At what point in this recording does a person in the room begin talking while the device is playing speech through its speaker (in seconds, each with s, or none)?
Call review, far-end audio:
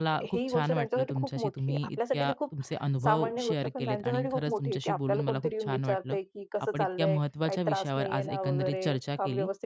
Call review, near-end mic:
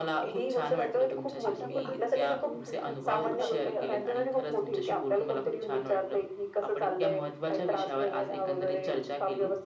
1.5 s